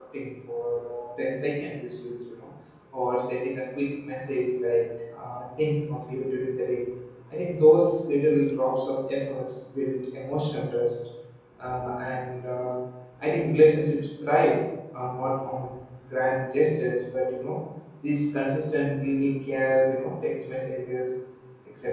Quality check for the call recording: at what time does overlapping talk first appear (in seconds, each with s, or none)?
none